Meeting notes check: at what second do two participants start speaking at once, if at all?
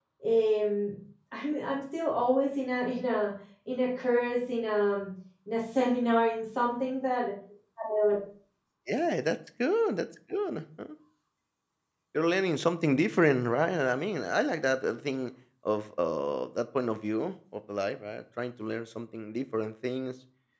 none

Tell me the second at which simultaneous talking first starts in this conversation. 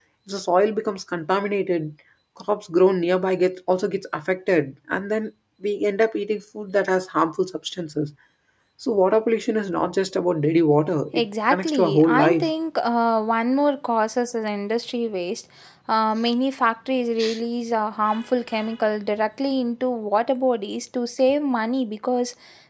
11.1 s

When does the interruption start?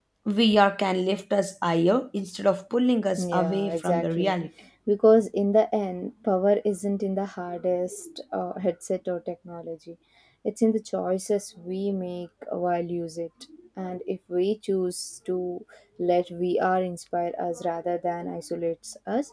3.2 s

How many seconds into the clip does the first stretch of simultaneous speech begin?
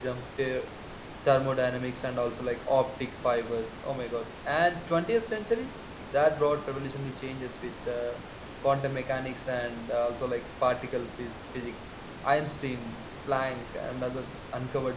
none

